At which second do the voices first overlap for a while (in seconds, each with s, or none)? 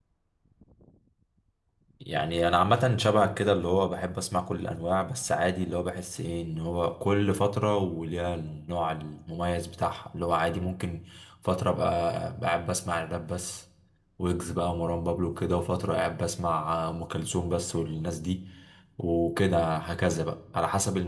none